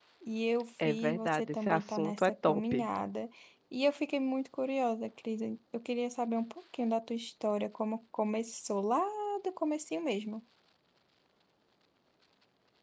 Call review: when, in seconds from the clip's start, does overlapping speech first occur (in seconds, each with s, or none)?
0.8 s